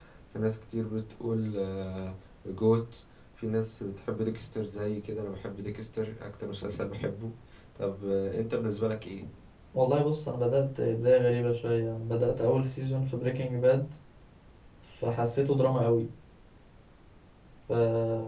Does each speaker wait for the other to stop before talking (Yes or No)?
Yes